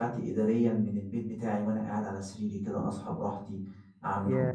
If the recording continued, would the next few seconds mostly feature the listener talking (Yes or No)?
No